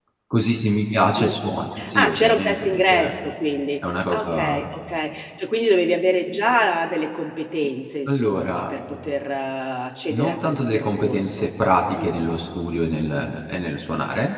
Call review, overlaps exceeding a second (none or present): present